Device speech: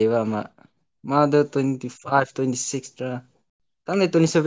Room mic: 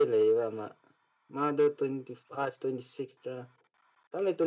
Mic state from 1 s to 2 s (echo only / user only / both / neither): echo only